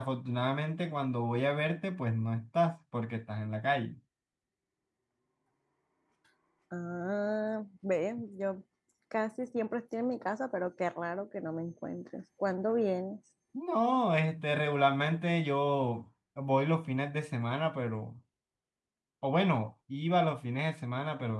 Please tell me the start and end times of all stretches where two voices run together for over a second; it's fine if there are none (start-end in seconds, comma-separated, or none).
none